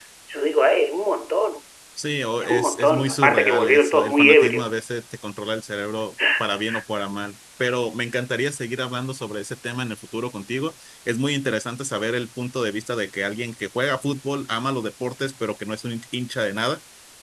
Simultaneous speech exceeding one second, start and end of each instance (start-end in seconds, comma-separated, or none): 2.4-4.7